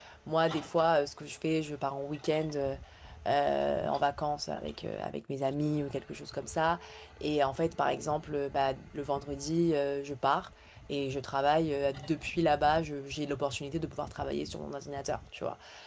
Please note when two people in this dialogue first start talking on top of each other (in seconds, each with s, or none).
none